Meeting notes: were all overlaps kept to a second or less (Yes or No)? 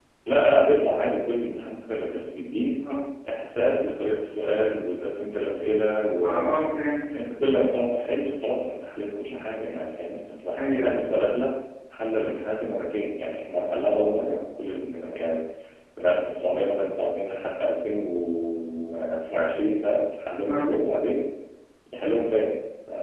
Yes